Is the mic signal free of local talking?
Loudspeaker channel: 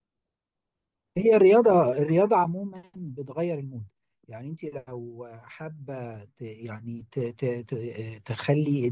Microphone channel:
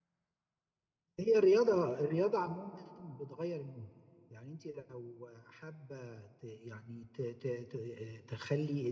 Yes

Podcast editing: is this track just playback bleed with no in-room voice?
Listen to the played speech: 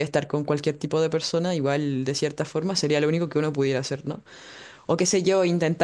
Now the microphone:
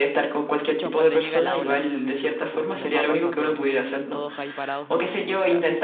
No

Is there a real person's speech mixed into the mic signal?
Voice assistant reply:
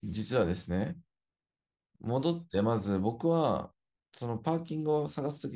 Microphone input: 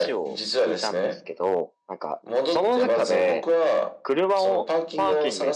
Yes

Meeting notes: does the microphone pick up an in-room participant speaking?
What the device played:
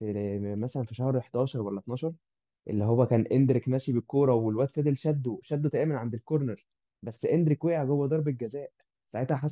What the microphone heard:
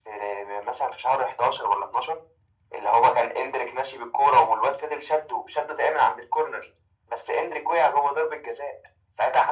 No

